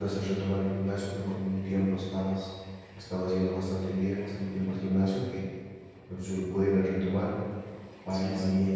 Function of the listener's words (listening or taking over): listening